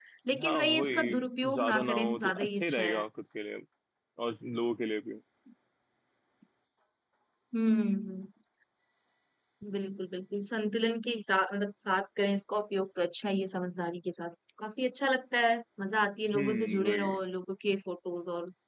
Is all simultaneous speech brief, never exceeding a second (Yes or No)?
No